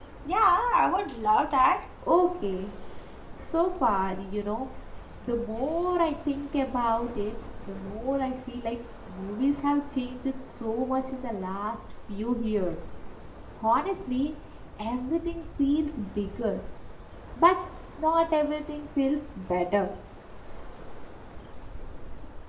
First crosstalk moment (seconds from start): none

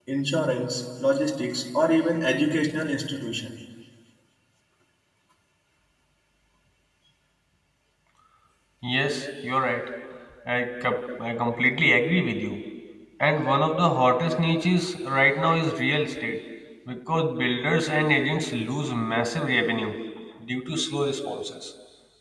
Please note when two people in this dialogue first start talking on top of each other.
none

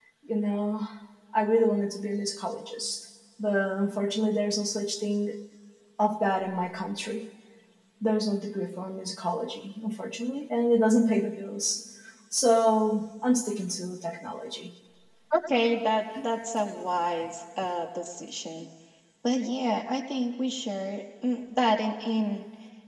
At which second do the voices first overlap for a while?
none

